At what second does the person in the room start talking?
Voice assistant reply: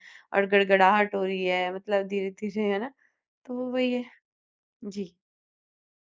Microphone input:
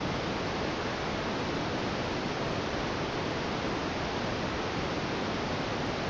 none

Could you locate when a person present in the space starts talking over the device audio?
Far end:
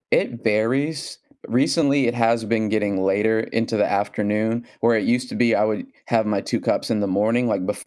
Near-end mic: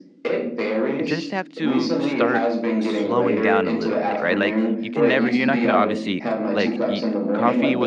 1.0 s

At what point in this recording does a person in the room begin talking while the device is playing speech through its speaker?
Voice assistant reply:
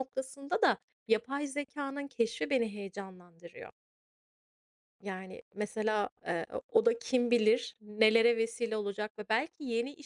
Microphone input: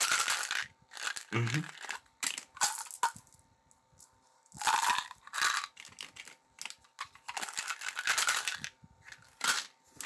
1.3 s

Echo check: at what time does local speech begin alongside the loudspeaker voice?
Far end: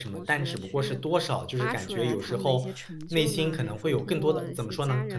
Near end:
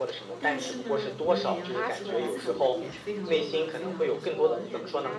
0.4 s

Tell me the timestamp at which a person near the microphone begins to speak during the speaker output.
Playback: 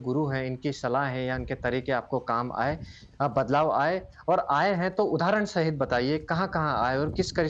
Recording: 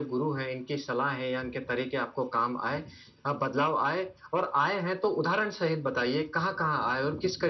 none

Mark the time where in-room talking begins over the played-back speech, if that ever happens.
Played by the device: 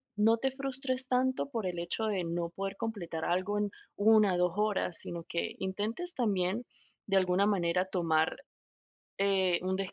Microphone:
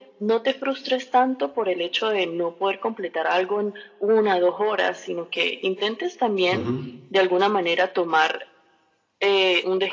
6.5 s

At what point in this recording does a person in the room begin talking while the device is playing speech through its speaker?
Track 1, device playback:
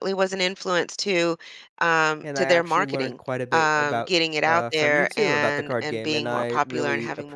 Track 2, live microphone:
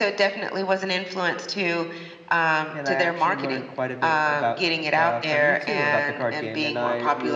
none

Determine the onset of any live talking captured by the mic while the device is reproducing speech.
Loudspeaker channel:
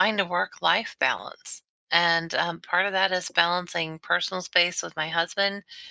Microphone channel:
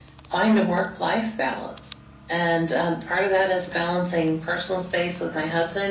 none

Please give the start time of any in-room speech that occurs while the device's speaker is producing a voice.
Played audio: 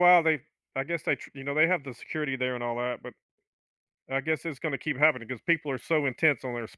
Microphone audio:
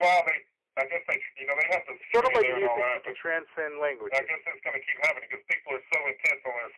2.0 s

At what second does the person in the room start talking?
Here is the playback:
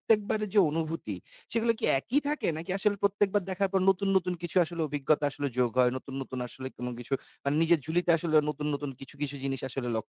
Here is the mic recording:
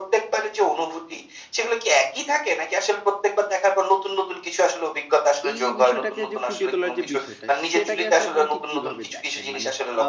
5.5 s

